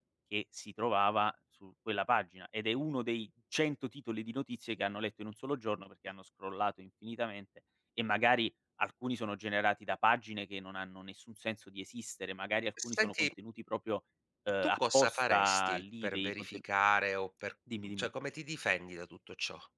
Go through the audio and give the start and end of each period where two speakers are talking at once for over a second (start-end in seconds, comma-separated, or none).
14.6-16.6